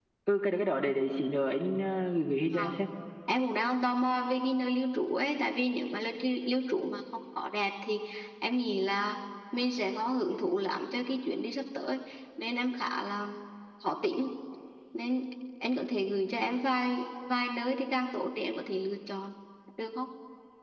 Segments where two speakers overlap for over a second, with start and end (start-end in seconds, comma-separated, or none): none